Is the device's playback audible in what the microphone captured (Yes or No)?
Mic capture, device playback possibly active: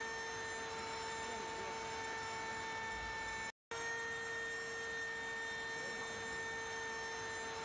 No